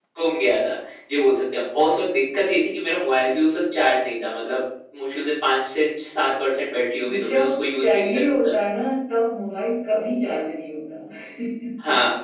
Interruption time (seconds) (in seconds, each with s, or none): 7.1 s